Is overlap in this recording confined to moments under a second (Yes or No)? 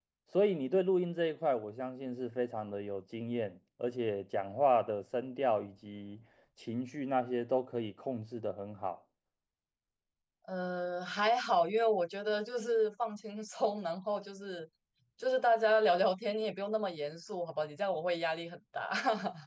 Yes